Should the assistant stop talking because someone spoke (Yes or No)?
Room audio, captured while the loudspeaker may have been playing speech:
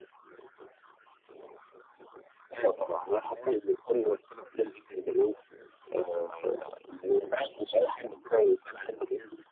No